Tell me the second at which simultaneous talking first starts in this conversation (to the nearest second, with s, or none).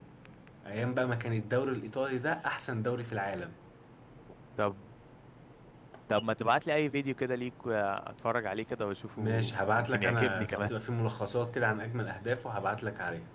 9 s